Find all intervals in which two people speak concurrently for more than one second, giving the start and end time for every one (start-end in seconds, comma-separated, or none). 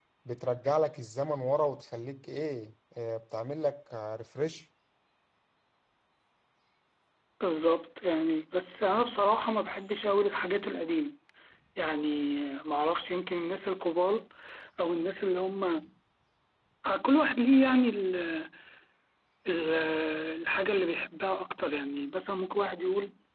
none